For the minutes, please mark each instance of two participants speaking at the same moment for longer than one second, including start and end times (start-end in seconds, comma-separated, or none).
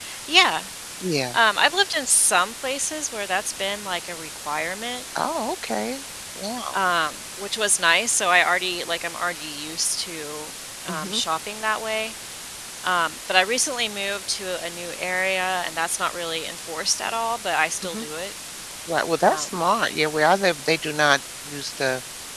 none